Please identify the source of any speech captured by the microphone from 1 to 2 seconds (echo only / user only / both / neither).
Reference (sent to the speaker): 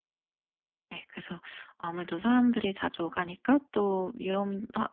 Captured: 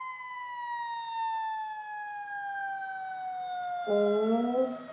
neither